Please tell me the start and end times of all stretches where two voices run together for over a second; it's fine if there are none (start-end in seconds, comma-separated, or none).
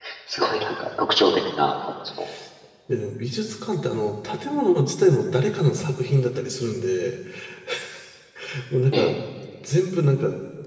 none